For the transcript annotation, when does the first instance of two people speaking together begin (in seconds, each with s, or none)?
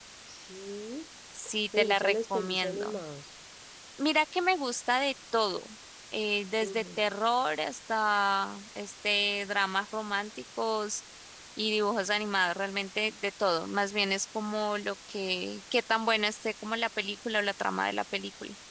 1.8 s